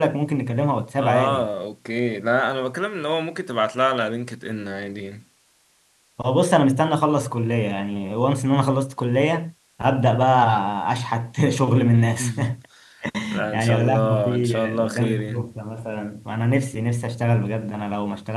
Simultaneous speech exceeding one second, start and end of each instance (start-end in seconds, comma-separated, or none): 13.5-15.4